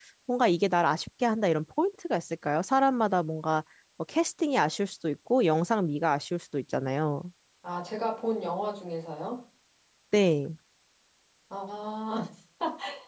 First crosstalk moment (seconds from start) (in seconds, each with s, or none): none